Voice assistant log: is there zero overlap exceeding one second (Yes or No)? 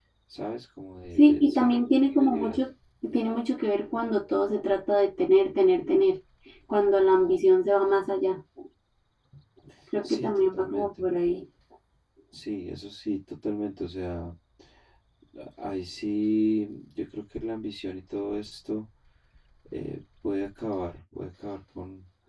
No